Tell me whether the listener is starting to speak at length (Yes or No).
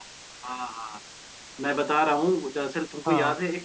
No